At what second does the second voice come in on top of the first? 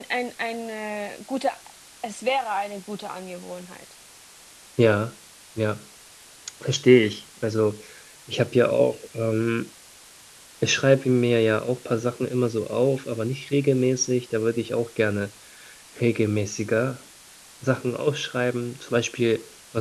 none

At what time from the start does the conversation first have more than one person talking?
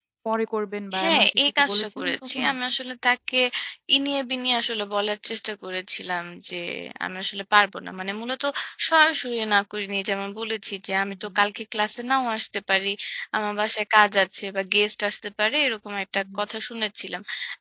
1.0 s

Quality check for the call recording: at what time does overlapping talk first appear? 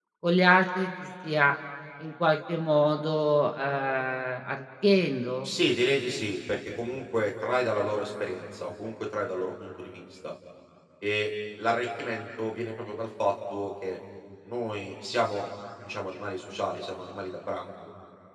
none

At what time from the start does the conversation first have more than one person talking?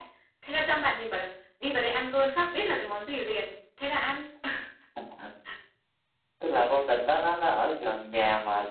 none

